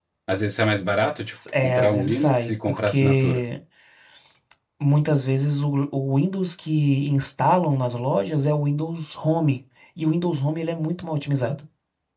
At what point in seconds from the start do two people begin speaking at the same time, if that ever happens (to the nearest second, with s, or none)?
1 s